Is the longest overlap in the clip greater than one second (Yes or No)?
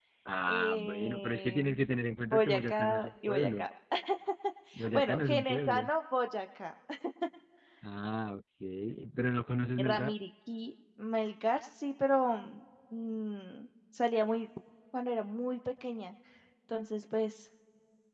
Yes